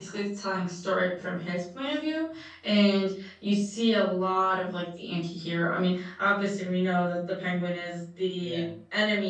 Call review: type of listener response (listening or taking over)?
listening